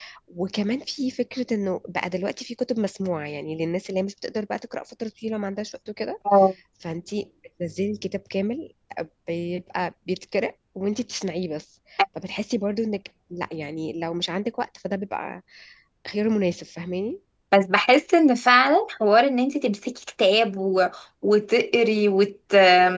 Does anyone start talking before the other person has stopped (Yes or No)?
No